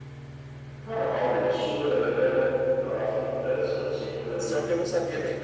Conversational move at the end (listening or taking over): taking over